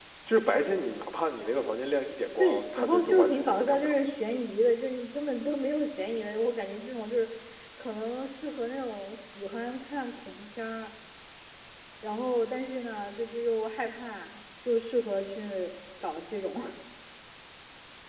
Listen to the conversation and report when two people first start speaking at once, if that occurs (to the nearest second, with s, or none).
2 s